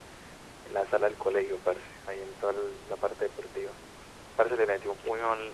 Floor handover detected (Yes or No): No